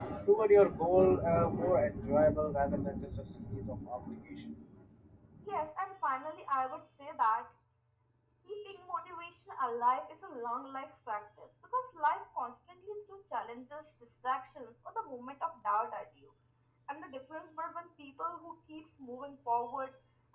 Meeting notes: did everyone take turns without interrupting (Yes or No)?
Yes